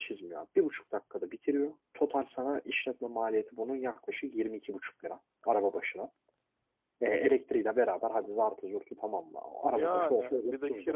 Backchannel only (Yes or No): No